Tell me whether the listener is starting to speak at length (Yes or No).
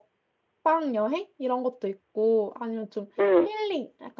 No